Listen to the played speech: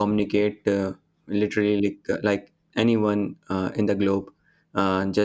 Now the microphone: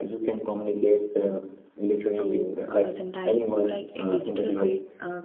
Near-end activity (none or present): present